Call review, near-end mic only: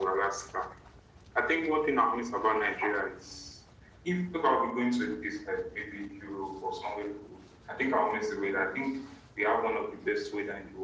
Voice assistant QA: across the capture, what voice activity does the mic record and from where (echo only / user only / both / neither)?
echo only